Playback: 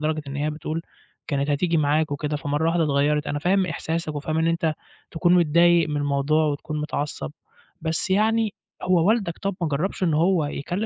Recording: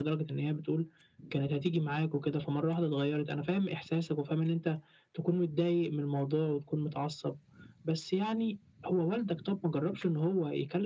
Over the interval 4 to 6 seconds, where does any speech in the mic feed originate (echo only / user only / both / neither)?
echo only